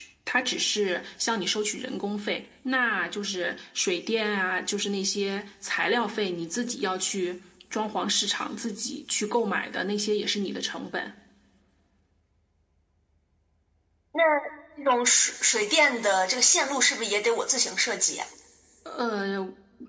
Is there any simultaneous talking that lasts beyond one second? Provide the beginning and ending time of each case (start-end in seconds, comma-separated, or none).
none